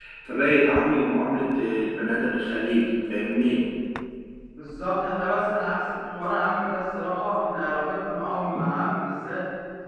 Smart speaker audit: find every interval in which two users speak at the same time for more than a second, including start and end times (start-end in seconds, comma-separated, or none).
none